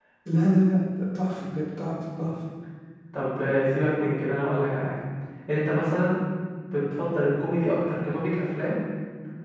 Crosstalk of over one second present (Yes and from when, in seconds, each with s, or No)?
No